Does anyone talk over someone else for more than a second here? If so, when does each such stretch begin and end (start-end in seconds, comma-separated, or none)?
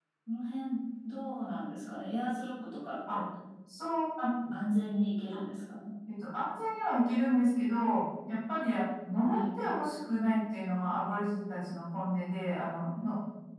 none